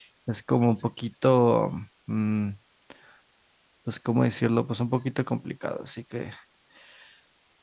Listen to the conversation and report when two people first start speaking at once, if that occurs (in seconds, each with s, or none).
none